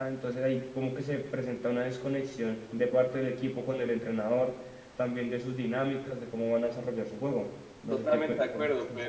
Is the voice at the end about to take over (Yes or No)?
Yes